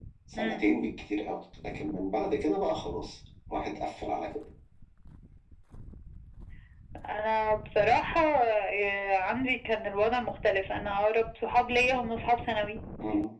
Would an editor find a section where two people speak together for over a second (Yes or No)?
No